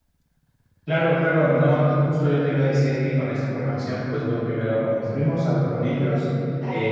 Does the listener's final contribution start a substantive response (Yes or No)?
No